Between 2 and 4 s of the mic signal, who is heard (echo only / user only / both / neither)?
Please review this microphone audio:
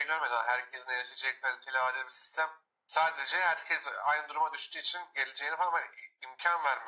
echo only